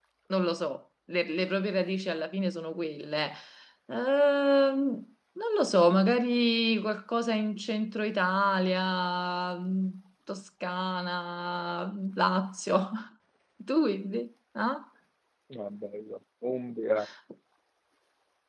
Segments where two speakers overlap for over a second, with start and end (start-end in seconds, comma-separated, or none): none